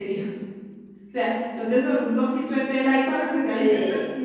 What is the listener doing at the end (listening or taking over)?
listening